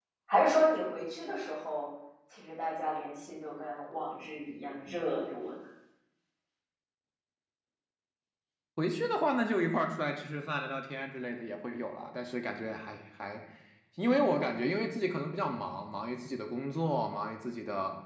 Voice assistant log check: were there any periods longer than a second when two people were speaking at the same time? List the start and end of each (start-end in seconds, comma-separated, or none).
none